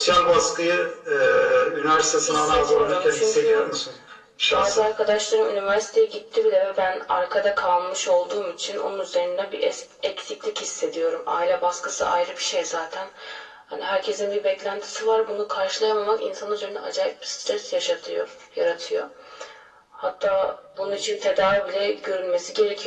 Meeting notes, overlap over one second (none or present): present